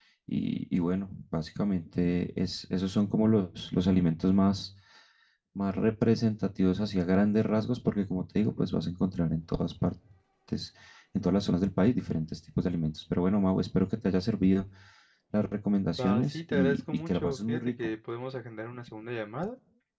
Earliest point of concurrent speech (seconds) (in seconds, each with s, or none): 16.0 s